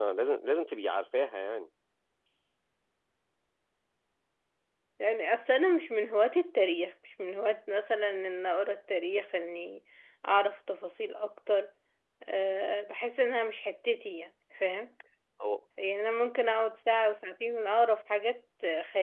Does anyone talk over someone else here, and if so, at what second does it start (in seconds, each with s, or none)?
none